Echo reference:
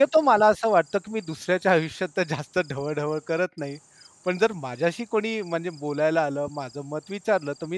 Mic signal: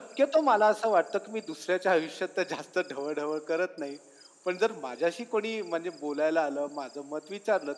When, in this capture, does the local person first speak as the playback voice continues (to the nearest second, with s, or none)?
none